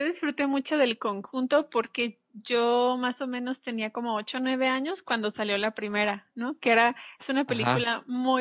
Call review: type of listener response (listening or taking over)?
listening